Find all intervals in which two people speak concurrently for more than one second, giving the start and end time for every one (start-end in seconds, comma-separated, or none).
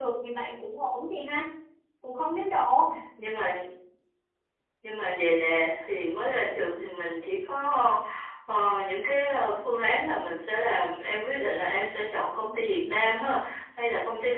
none